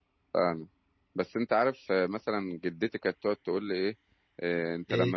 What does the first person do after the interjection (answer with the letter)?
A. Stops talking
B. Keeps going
B